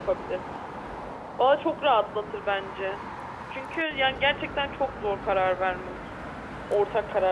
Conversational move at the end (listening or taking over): taking over